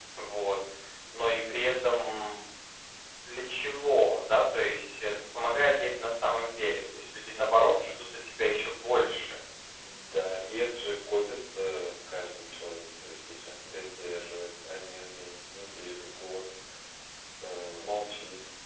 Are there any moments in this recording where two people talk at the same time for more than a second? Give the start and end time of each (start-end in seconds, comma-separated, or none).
none